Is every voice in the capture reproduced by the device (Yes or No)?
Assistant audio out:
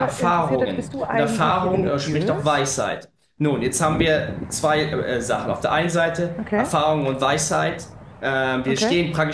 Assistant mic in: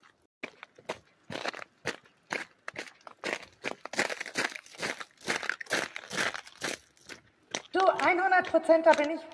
No